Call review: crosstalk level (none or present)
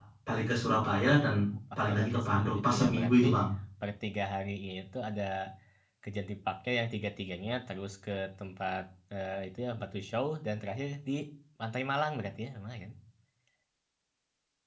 present